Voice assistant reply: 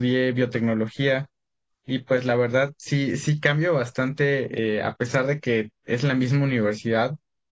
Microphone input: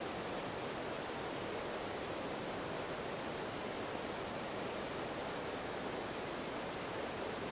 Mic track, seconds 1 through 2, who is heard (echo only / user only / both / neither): neither